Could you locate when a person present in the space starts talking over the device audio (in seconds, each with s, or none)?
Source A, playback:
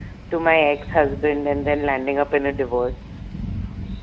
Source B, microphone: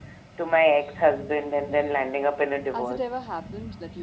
2.7 s